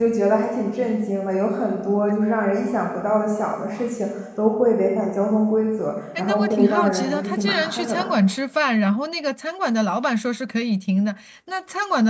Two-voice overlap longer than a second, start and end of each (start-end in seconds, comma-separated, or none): 6.2-8.1